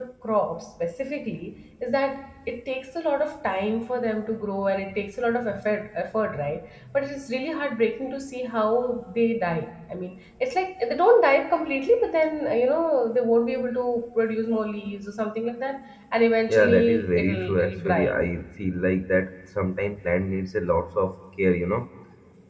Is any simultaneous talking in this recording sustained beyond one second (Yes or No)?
Yes